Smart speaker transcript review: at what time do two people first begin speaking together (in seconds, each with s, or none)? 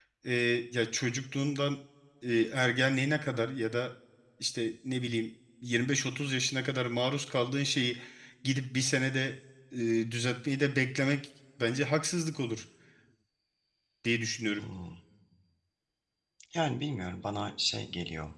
none